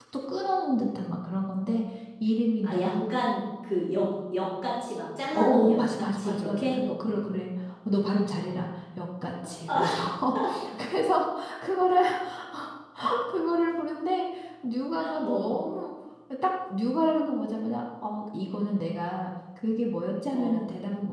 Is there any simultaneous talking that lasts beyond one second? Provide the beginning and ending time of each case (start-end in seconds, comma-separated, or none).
5.4-6.8